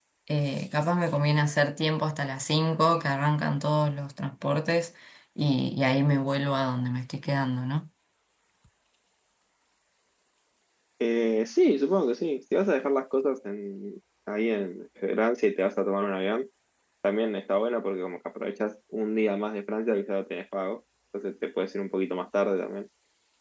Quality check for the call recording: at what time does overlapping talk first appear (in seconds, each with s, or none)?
none